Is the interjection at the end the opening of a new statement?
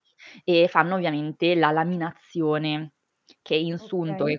No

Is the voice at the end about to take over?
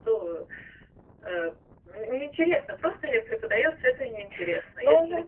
No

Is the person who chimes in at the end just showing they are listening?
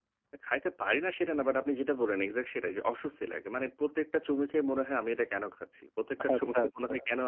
Yes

